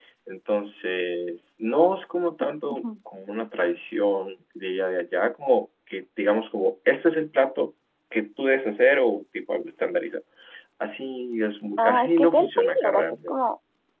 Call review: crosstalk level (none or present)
present